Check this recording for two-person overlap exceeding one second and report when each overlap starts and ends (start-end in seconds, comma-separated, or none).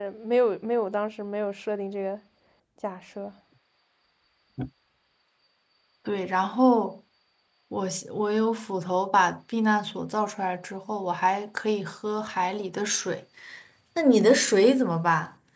none